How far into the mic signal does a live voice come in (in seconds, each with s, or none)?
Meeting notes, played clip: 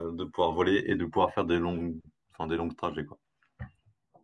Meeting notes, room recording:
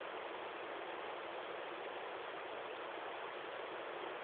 none